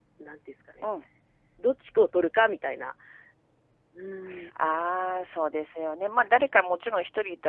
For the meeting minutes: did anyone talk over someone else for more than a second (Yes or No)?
No